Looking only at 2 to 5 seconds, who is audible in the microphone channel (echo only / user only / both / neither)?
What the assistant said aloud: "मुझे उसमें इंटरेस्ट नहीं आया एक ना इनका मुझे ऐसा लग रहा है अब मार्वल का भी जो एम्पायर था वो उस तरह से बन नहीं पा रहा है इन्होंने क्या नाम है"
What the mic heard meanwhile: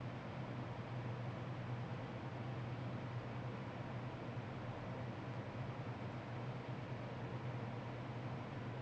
neither